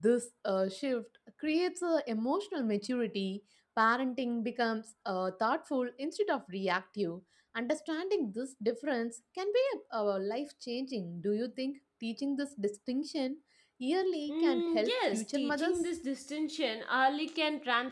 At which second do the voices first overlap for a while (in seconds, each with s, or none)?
14.3 s